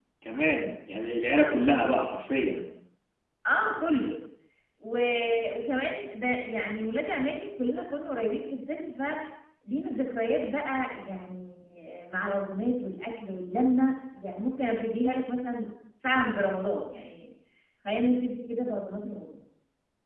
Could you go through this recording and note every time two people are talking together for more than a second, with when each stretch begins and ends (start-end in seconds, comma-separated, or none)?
none